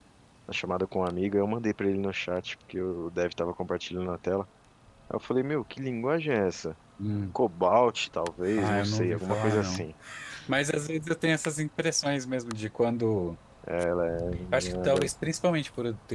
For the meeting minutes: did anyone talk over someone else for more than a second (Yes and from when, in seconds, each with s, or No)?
Yes, from 8.6 s